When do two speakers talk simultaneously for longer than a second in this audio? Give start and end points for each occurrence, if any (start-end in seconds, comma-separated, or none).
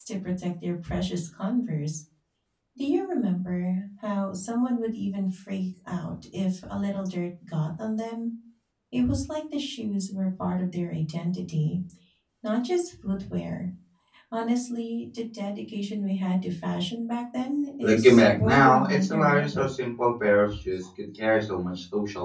17.8-19.6